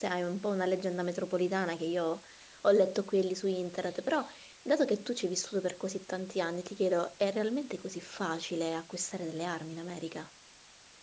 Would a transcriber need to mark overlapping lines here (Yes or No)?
No